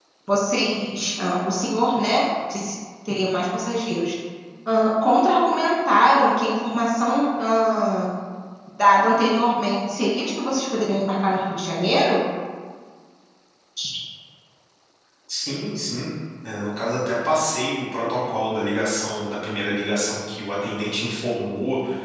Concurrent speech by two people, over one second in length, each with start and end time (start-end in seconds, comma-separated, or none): none